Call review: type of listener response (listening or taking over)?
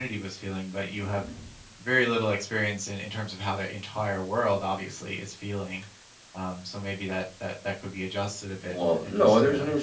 taking over